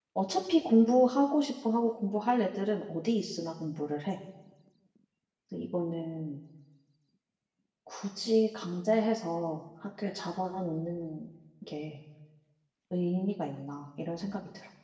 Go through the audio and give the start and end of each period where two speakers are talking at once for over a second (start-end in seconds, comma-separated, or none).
none